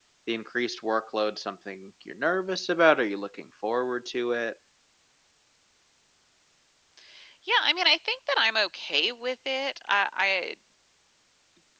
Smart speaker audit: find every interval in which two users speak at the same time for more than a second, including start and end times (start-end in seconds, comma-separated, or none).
none